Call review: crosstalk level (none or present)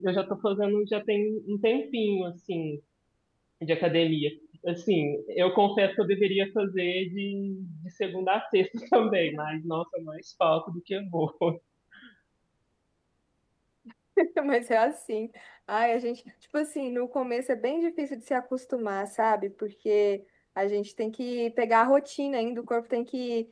none